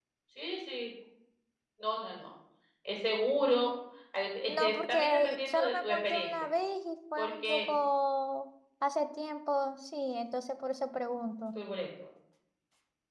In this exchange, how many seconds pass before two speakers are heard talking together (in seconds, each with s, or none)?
4.5 s